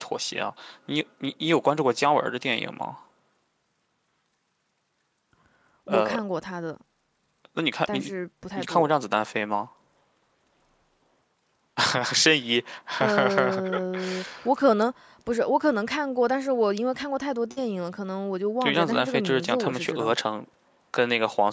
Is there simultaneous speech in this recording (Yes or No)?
Yes